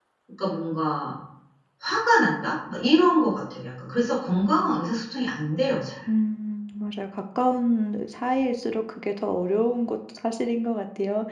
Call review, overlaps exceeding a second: none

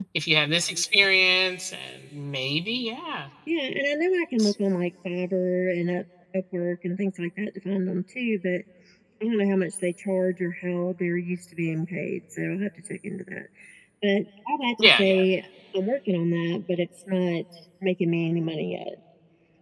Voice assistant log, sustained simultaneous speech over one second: none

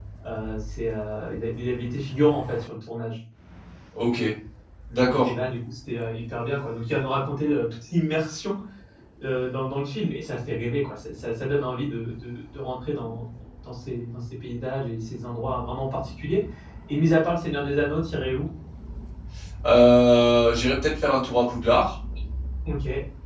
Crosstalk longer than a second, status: none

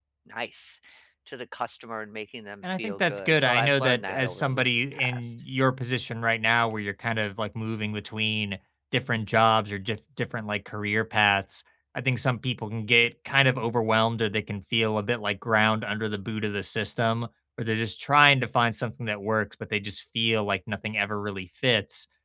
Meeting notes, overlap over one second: present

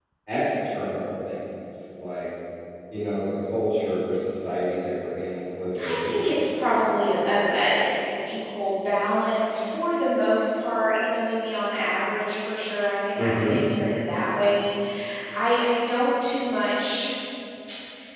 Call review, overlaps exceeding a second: present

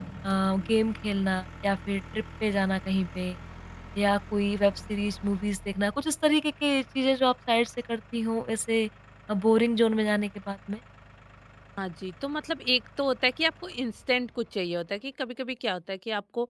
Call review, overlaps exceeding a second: none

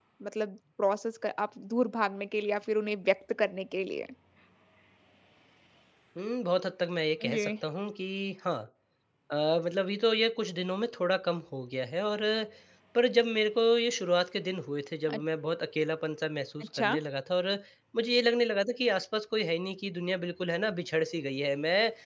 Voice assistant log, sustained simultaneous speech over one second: none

